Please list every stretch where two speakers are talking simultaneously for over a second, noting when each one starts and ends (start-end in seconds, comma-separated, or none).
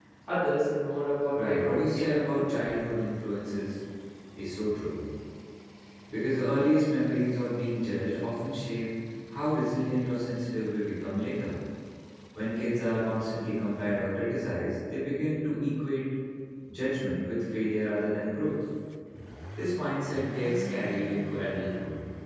1.4-2.6